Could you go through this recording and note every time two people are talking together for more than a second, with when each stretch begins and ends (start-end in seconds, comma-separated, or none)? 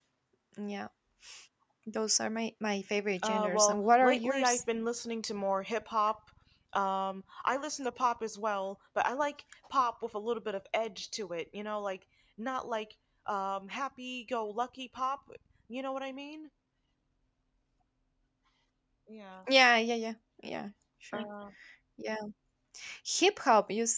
3.2-4.6